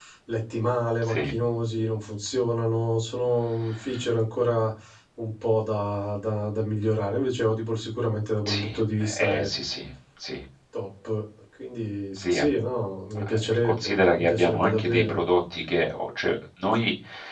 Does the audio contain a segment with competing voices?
Yes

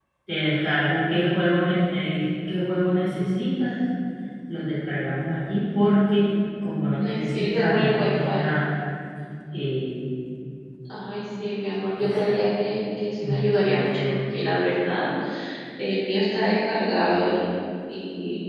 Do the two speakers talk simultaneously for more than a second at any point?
Yes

